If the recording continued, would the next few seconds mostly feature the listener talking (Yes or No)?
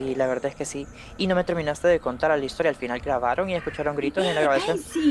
Yes